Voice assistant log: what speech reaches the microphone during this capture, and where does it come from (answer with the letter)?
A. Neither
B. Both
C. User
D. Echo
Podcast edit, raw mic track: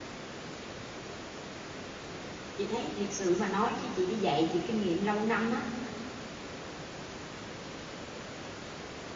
C